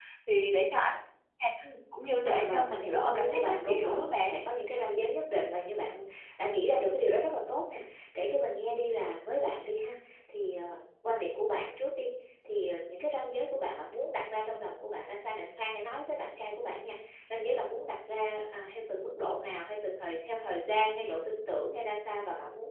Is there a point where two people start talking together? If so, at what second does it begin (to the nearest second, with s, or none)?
2 s